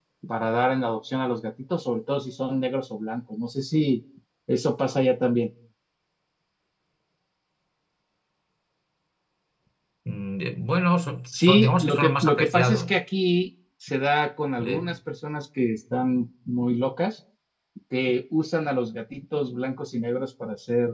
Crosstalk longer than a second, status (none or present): present